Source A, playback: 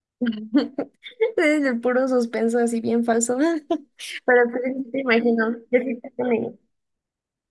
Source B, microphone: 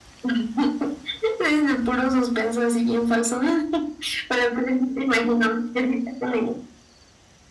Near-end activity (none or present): none